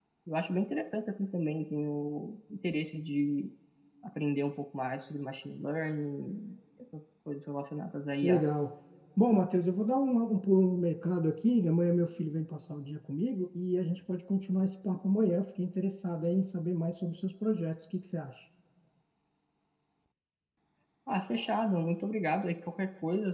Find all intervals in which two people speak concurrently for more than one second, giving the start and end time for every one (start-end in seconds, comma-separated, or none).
none